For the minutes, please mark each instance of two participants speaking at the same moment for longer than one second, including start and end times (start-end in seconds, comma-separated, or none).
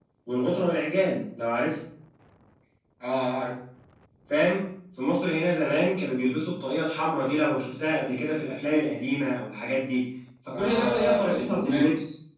10.5-11.8